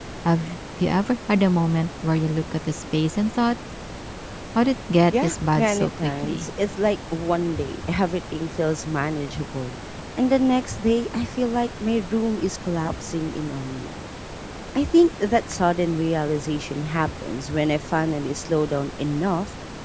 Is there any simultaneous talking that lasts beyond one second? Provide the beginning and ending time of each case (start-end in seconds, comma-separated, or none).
5.2-6.5